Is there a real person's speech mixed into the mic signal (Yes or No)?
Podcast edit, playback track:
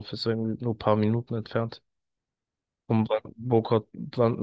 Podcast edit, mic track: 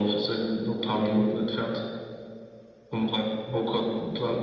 No